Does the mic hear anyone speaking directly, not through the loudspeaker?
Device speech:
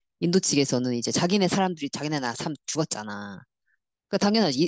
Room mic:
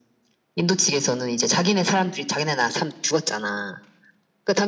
No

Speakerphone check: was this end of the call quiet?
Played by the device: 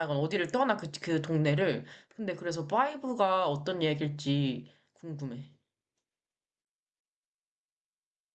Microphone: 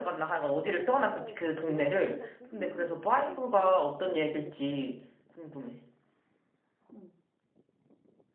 No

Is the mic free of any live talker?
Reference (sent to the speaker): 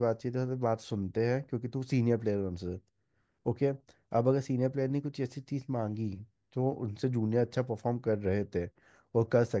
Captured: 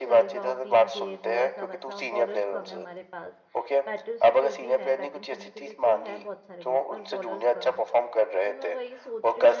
No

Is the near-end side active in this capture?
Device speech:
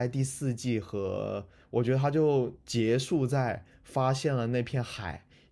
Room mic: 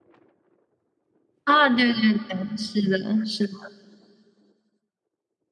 Yes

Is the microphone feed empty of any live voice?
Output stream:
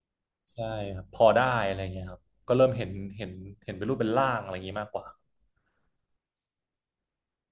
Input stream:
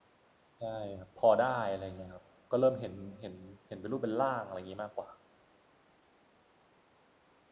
Yes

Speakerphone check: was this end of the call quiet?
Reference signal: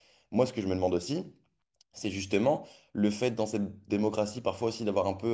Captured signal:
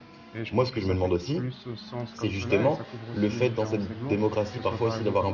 No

